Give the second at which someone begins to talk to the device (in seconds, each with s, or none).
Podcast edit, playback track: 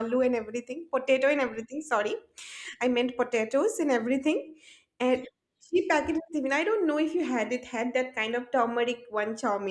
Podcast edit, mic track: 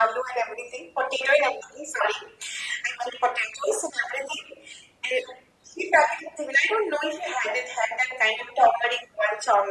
none